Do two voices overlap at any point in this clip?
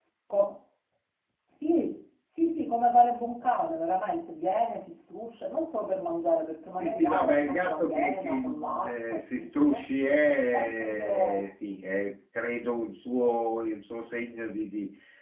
Yes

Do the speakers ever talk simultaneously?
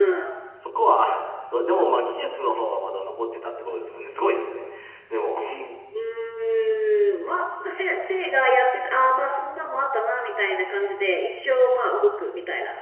No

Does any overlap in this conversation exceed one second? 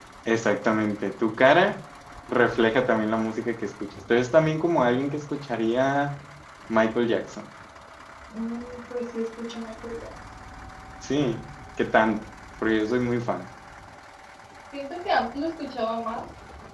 No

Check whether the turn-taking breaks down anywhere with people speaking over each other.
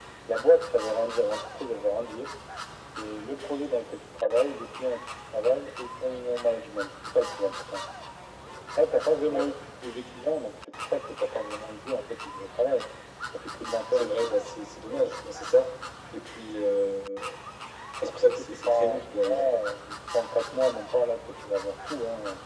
Yes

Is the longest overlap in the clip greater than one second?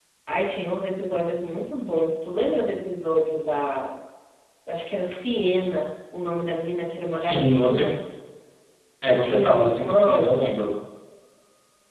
Yes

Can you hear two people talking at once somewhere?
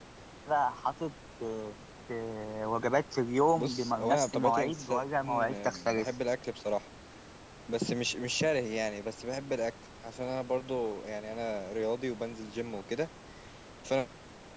Yes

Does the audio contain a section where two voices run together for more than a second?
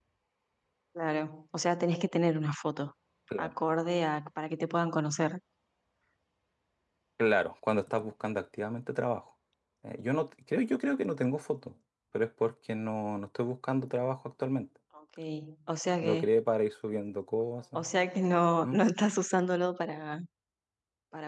No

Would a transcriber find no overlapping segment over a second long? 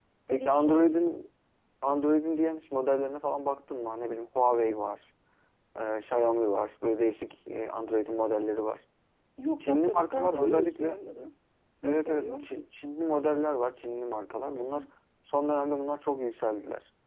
No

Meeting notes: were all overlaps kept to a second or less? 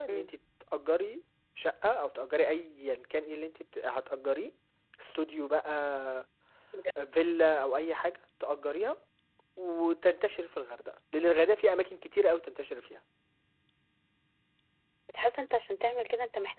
Yes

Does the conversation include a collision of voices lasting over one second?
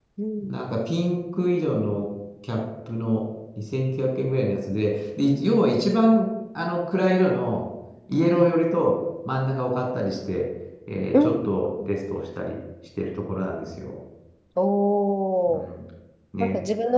No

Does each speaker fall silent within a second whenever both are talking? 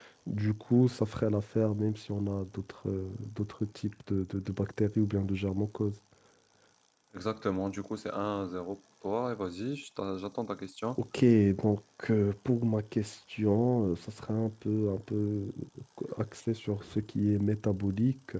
Yes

